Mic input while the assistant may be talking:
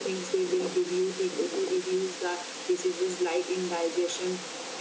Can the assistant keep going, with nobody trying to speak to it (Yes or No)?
Yes